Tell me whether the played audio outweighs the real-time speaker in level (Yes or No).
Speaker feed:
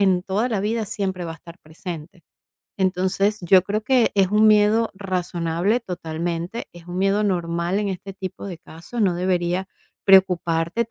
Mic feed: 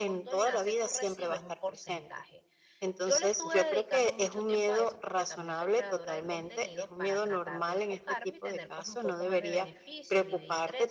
Yes